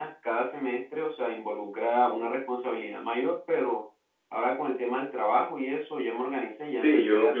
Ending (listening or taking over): taking over